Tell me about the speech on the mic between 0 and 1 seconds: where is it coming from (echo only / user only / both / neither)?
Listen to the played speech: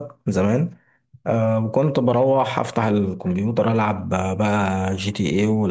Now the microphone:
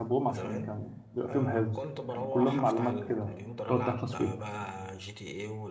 both